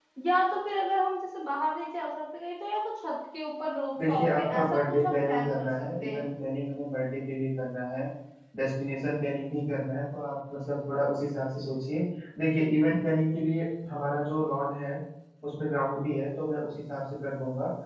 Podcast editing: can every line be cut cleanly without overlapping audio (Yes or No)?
No